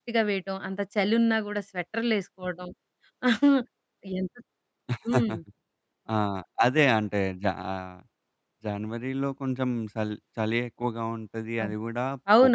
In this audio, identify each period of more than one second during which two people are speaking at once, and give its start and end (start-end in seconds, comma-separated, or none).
none